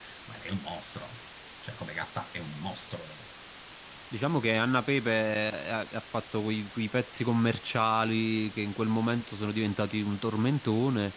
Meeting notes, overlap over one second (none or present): none